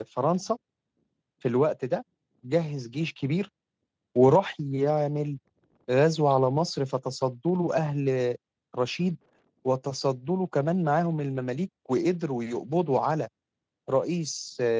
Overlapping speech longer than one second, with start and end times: none

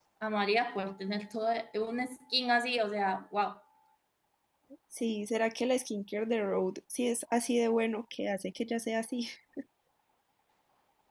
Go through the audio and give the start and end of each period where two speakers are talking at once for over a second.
none

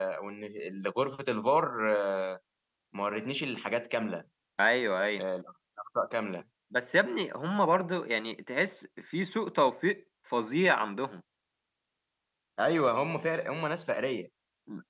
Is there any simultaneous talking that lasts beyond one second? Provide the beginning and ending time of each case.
none

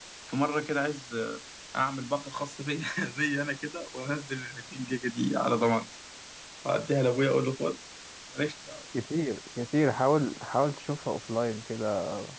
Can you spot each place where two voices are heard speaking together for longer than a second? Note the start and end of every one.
none

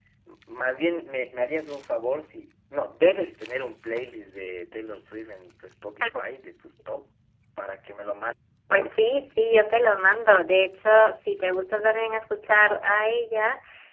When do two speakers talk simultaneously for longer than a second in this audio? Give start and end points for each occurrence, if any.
none

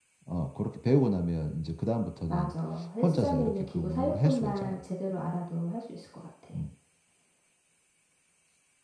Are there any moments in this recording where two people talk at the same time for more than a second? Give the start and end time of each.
3.0-4.8

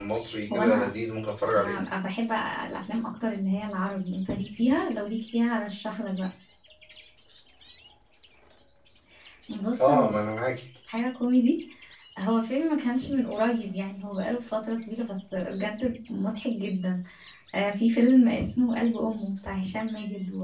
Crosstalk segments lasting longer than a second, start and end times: none

